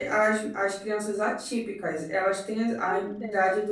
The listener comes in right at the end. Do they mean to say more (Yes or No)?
No